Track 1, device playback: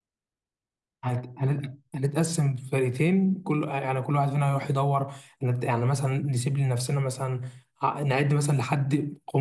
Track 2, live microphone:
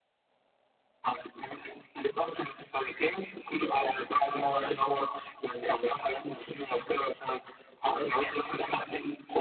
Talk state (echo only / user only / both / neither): both